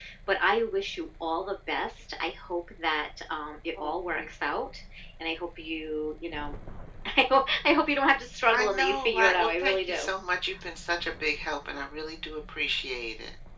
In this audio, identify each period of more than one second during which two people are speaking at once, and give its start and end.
8.5-10.1

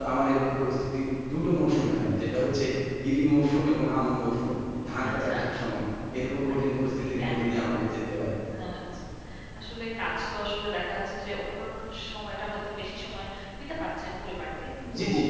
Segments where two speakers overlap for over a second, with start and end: 6.5-7.7

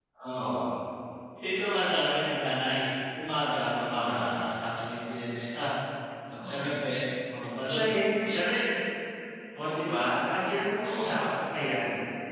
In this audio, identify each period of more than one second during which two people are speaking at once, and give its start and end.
none

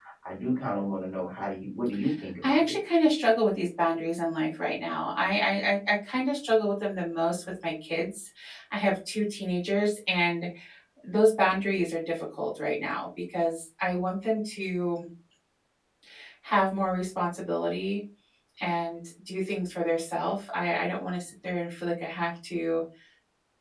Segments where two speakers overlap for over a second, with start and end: none

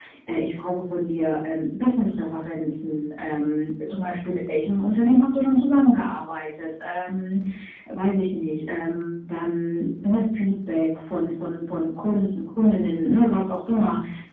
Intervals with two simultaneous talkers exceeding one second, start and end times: none

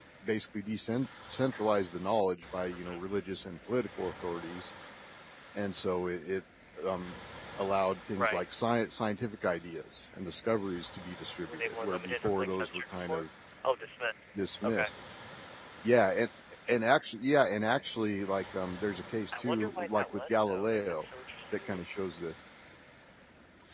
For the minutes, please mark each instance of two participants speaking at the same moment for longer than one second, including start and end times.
11.4-13.2, 19.3-21.1

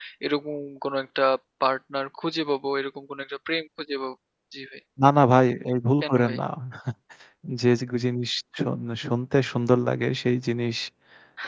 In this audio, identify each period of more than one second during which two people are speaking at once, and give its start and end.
none

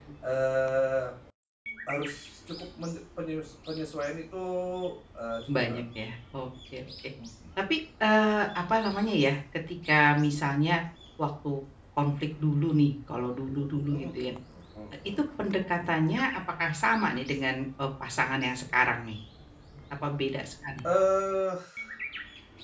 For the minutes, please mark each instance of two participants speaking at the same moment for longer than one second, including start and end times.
none

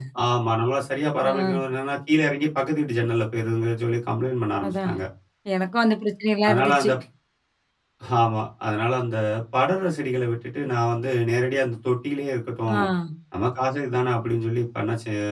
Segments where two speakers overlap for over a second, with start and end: none

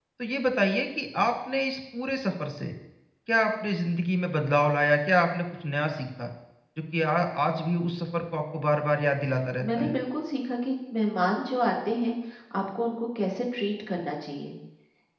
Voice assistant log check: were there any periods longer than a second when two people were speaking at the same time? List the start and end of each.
none

